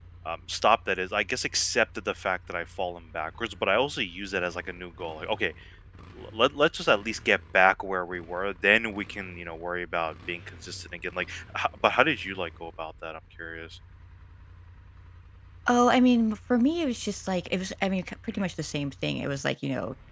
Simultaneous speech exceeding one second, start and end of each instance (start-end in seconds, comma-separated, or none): none